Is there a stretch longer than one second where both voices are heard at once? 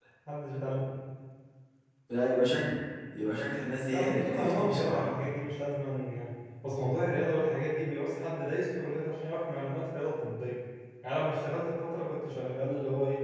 Yes, from 3.9 s

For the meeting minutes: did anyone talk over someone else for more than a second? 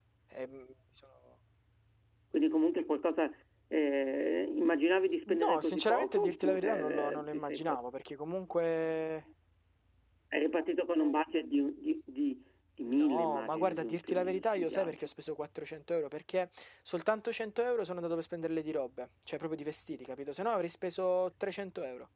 Yes, from 5.3 s

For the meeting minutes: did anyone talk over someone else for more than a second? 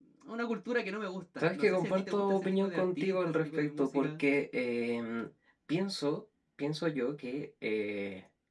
Yes, from 1.4 s

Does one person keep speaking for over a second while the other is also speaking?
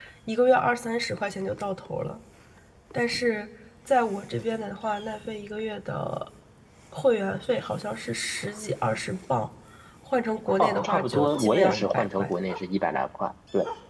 Yes, from 10.6 s

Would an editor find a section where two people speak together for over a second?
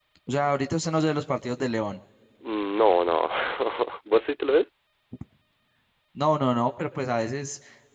No

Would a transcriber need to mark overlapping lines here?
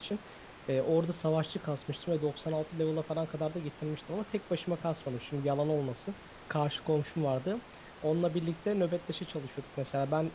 No

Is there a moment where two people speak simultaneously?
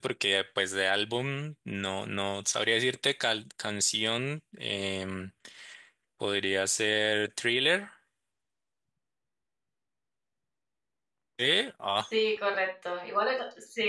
No

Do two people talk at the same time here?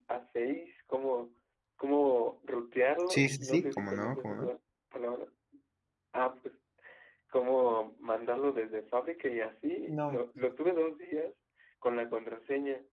Yes, from 3.1 s

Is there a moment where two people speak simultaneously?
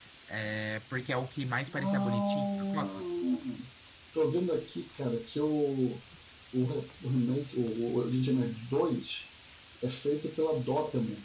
Yes, from 1.8 s

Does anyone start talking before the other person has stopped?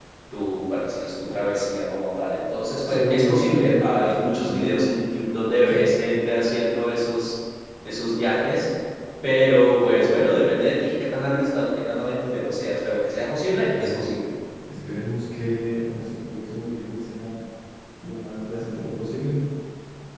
Yes, from 2.9 s

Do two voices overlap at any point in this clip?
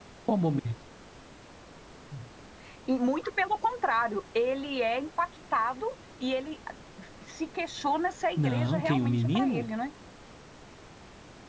Yes, from 8.4 s

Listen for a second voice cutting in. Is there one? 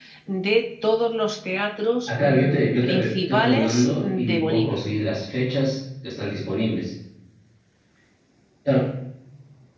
Yes, from 2.1 s

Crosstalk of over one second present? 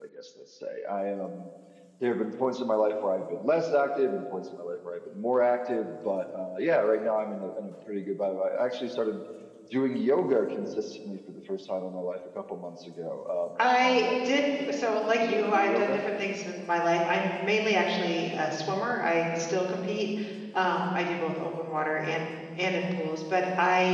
Yes, from 13.6 s

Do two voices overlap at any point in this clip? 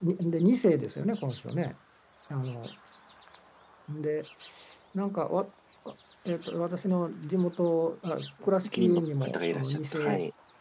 Yes, from 8.4 s

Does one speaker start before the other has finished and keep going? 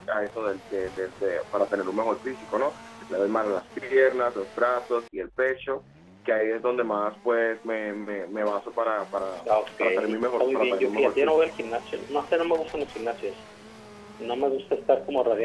Yes, from 9.8 s

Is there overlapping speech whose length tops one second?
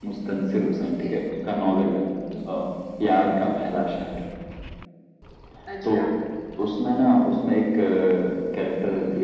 No

